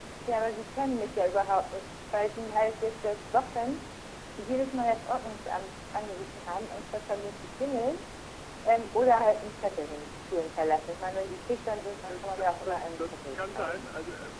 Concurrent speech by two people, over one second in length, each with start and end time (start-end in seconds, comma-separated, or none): 12.1-13.8